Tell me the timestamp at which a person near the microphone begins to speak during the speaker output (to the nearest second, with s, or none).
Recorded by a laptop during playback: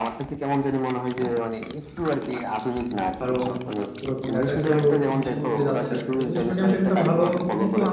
3 s